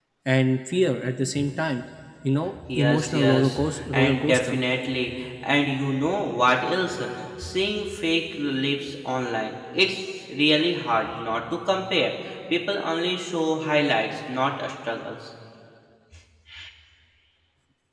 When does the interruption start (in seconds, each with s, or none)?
2.5 s